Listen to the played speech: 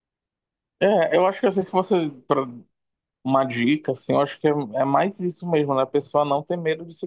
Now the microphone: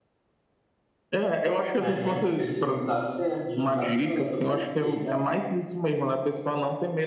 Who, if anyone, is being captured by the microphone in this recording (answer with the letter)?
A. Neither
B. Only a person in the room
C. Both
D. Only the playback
C